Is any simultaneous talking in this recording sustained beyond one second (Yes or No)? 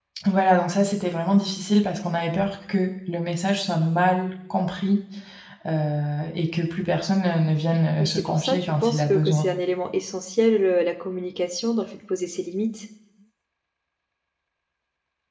Yes